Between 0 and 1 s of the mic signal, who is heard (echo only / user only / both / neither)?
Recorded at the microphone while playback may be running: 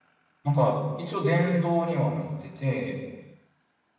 user only